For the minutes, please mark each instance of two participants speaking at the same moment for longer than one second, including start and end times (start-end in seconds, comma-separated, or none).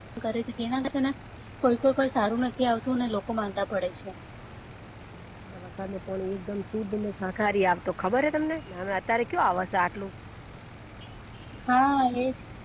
none